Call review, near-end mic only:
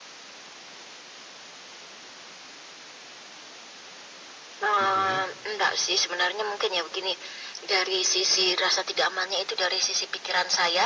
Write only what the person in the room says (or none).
Oke,